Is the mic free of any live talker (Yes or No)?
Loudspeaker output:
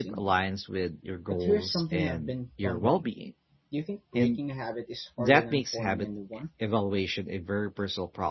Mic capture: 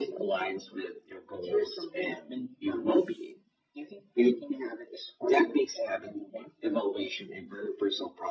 Yes